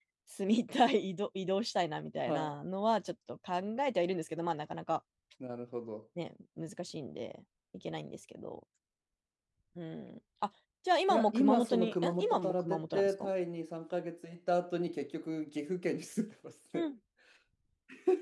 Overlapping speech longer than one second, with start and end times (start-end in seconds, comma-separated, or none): 11.1-13.3